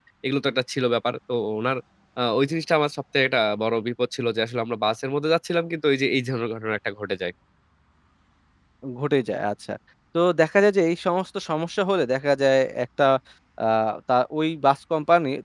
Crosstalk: none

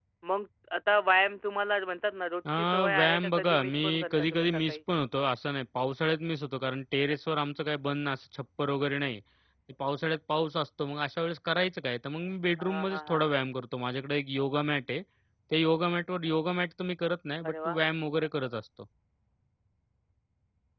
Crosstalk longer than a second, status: present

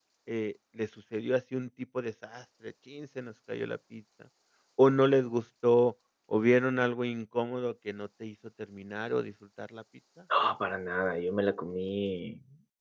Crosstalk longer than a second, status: none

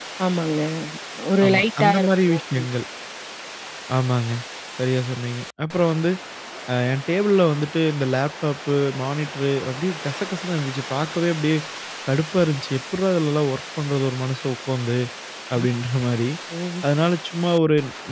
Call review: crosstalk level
present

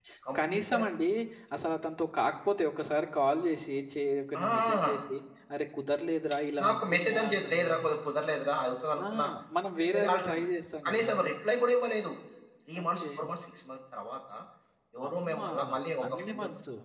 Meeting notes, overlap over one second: present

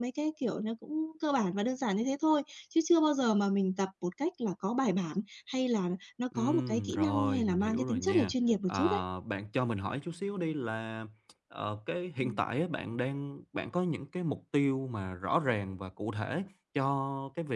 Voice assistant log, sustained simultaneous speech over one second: present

